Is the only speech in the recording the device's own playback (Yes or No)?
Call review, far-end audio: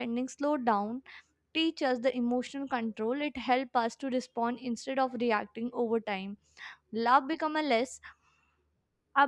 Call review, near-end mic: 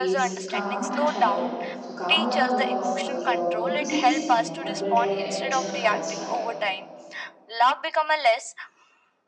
No